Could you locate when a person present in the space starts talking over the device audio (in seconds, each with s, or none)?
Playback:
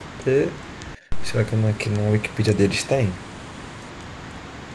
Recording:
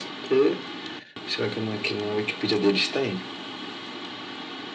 none